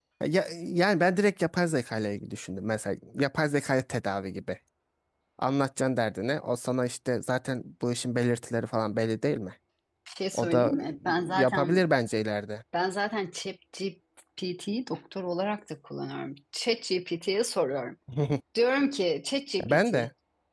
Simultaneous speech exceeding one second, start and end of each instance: 10.3-11.8

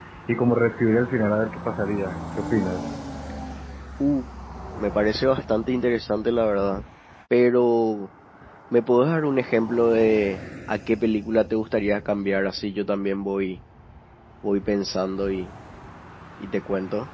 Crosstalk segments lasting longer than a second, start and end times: none

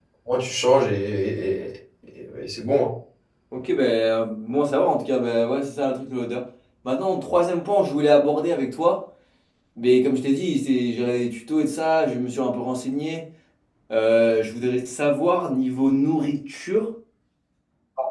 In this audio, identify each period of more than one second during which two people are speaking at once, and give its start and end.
none

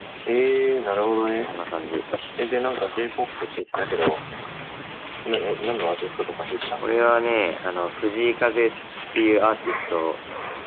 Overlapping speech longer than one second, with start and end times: none

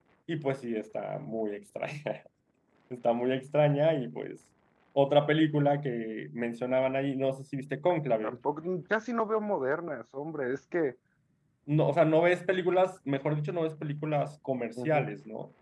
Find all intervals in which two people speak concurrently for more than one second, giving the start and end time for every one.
none

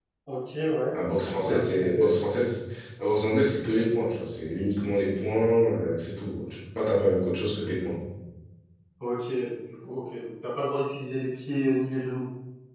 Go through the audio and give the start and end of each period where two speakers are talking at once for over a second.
0.9-2.2

